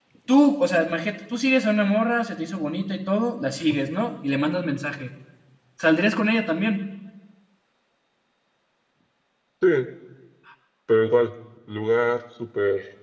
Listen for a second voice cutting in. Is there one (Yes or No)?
No